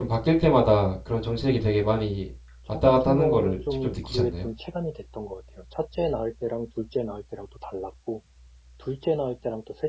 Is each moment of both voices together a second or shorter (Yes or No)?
No